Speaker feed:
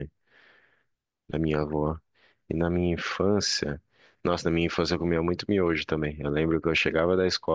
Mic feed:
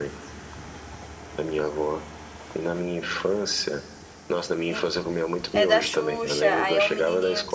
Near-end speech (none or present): present